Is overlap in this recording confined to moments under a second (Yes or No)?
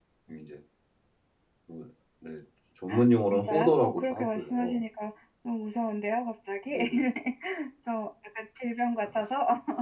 No